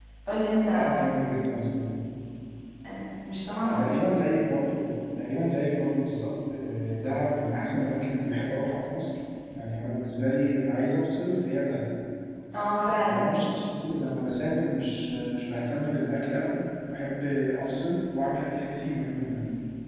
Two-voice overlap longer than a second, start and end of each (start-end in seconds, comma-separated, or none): none